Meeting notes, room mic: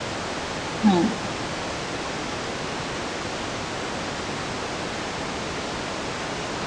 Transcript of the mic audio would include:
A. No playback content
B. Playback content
A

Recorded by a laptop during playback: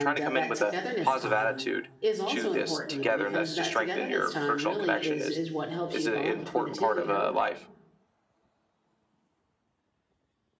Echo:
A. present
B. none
A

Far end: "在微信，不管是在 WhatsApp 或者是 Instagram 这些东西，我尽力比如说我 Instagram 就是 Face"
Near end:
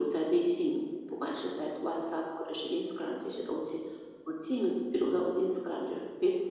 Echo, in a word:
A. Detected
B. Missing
A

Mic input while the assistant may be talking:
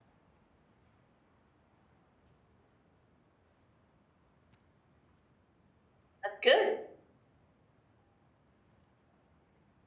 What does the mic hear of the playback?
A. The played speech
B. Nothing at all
B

